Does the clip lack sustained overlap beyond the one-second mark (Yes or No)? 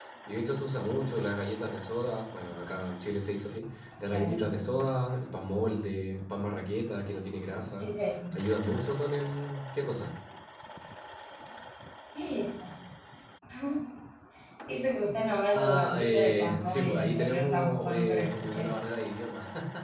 No